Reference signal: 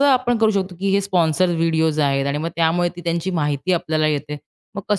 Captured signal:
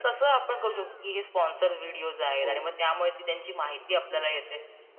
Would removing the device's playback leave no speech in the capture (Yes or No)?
No